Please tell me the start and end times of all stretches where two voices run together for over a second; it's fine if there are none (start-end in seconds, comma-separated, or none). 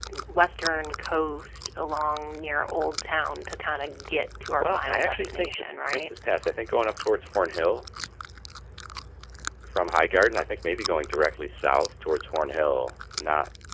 4.6-6.1